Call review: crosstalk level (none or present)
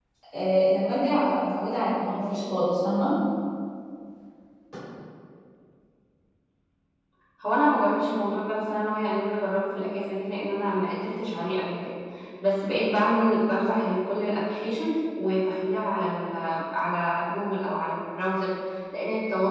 none